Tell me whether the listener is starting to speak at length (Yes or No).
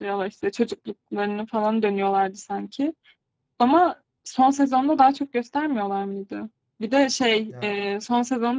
No